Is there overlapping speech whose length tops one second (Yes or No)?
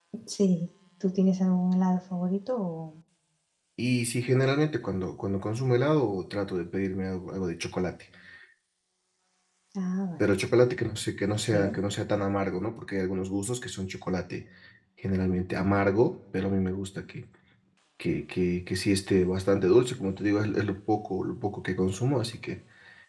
No